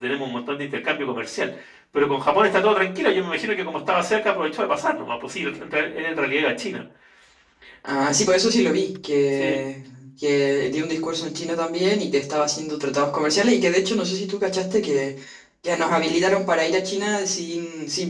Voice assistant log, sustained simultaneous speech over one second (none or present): none